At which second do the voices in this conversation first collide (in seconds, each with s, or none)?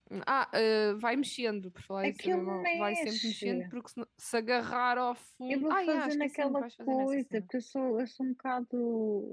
2.0 s